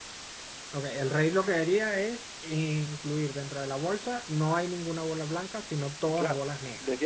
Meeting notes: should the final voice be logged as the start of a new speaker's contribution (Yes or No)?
Yes